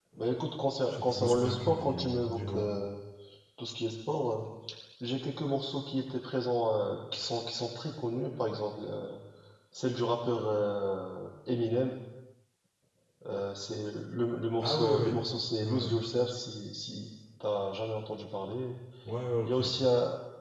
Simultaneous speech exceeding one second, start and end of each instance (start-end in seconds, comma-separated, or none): 0.9-2.7